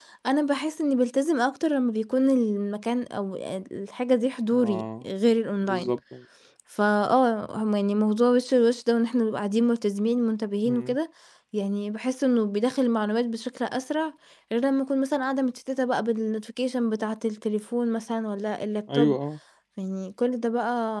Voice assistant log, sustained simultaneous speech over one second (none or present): none